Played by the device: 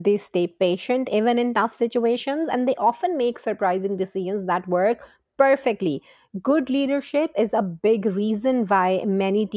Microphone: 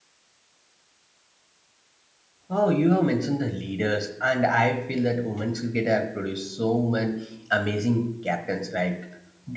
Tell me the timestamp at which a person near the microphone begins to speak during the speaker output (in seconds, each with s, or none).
2.5 s